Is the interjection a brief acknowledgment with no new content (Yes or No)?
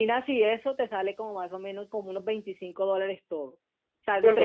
Yes